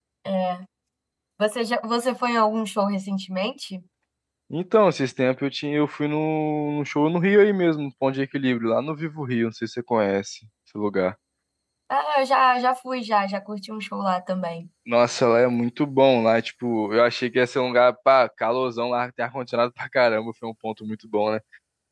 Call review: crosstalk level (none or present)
none